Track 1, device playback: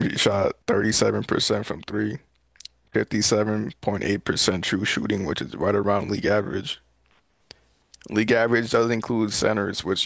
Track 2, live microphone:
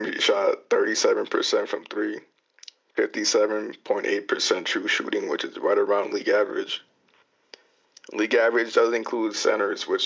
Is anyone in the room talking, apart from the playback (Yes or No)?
No